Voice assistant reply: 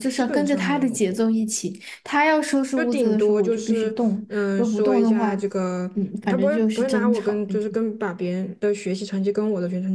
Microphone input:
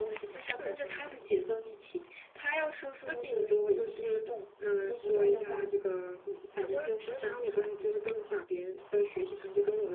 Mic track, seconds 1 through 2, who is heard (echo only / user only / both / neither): echo only